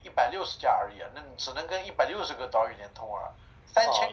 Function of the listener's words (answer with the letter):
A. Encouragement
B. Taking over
B